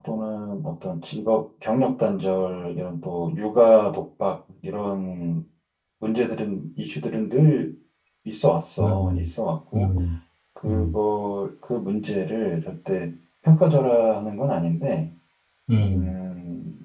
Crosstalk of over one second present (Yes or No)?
No